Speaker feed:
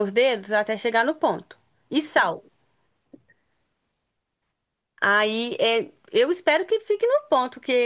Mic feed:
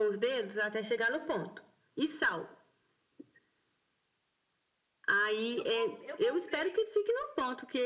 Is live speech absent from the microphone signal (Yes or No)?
No